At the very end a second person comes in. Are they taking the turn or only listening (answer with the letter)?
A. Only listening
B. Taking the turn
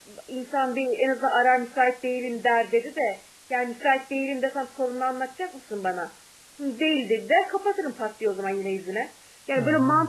A